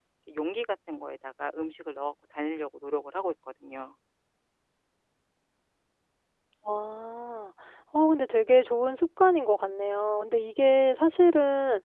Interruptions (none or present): none